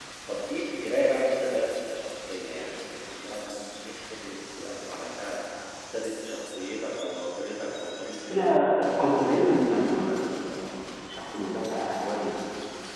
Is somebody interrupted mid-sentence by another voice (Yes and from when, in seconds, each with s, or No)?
Yes, from 8.3 s